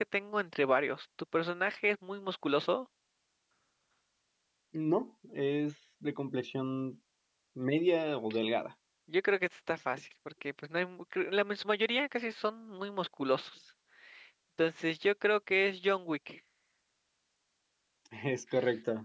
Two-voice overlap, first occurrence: none

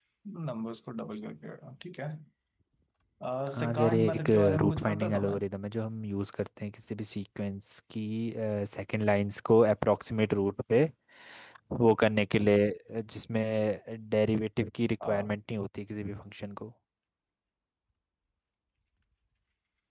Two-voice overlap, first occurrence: 3.6 s

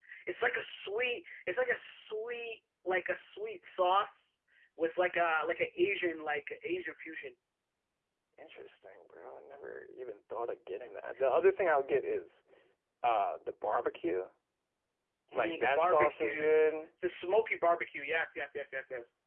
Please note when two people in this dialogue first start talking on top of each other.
15.3 s

